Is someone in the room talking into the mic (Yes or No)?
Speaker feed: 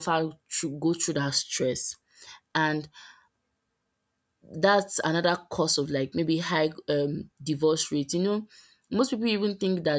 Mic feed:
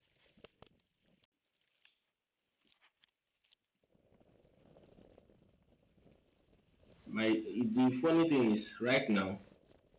Yes